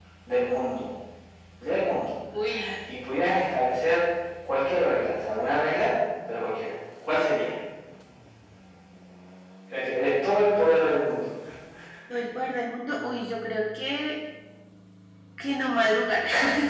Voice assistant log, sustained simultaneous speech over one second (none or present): none